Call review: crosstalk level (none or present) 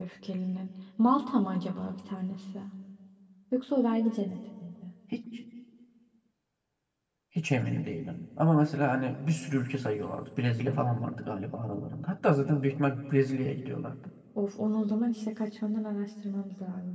none